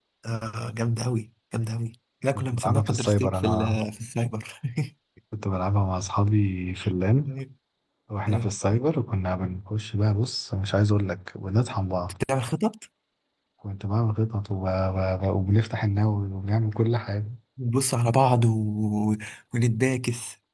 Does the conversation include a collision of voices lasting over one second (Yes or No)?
Yes